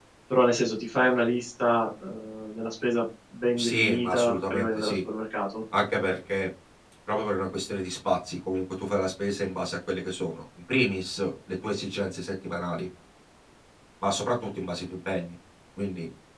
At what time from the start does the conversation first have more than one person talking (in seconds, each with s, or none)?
3.6 s